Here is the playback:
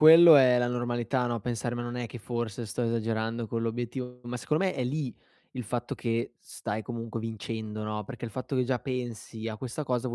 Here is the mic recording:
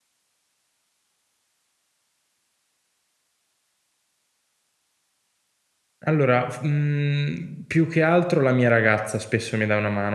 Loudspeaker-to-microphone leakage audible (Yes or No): No